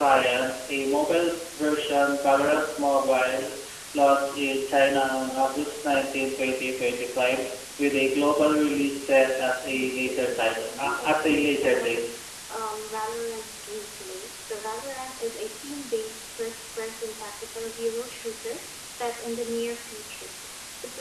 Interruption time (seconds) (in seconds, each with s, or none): 9.7 s